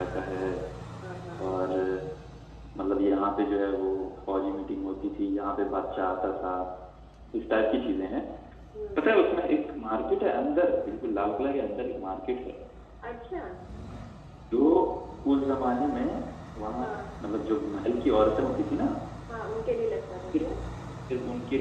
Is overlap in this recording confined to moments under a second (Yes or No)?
Yes